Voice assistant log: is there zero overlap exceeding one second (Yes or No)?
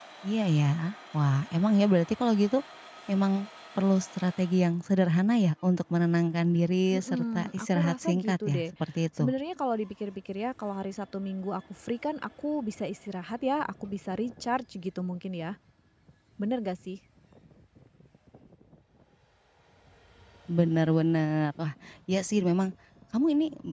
No